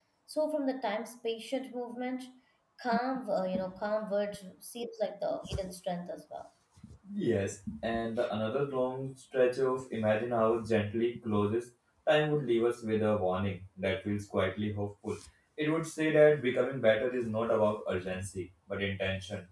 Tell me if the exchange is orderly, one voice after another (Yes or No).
Yes